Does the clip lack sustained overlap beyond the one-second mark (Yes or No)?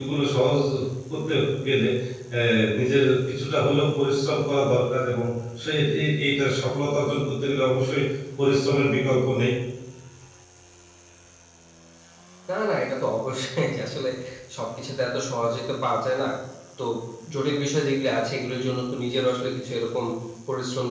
Yes